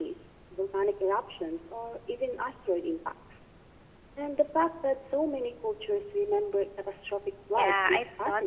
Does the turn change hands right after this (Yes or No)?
Yes